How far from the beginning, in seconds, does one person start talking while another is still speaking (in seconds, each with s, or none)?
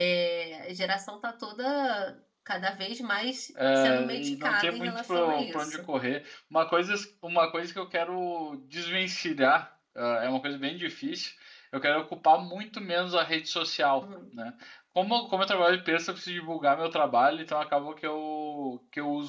3.8 s